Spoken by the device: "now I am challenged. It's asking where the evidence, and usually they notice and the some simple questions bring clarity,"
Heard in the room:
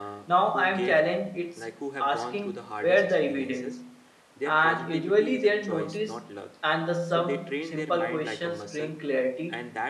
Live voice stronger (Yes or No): No